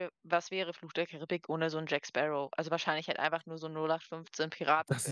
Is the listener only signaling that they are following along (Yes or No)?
No